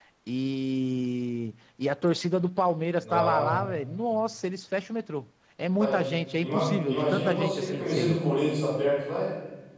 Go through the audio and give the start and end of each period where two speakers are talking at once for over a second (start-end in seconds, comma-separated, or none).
6.4-8.2